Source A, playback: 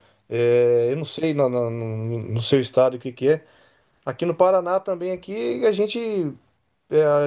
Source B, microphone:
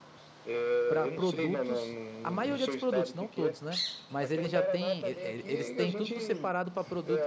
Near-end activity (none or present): present